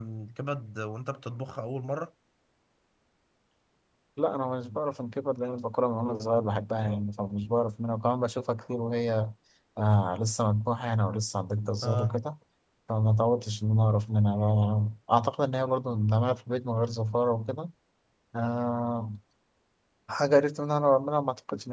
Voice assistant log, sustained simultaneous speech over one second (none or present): none